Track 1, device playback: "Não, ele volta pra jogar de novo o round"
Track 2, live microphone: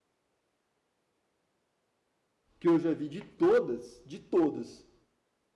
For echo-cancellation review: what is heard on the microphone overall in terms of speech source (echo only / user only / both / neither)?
user only